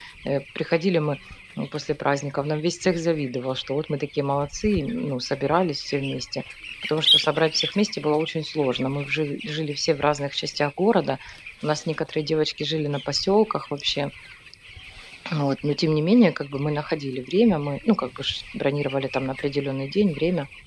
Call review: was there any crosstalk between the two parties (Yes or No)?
No